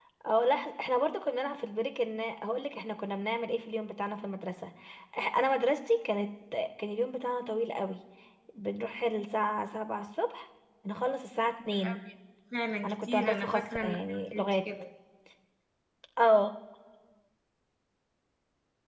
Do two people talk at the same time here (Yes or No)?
Yes